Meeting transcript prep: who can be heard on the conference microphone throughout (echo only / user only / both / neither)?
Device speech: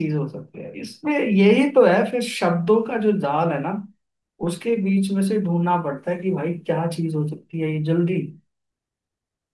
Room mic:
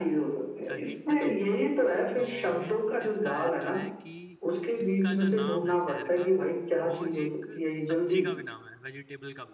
both